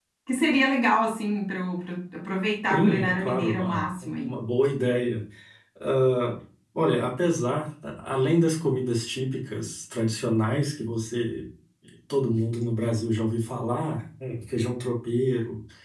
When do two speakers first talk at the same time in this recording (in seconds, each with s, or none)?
2.7 s